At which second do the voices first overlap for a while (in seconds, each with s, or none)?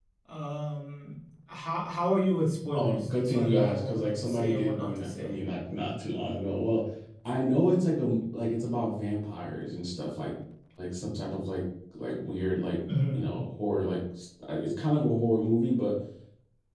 2.7 s